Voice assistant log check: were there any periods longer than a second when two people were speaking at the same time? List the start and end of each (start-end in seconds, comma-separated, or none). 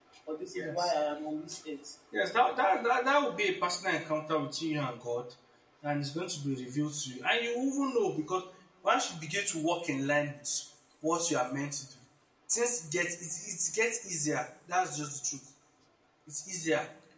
none